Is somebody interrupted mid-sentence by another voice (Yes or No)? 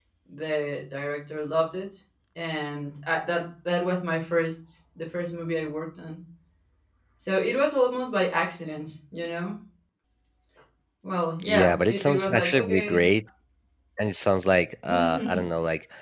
Yes